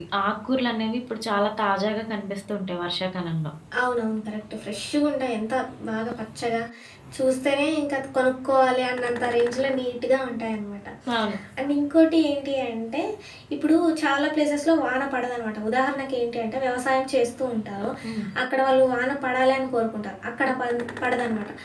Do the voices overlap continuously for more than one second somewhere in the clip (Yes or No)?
No